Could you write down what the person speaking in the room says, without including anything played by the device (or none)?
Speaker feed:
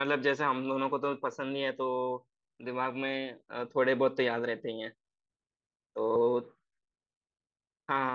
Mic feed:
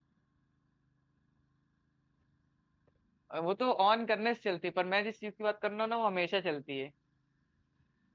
अ, वो तो ऑन करने से चलती है पर मैं जिस चीज की बात कर रहा हूँ ना वो हमेशा चलती है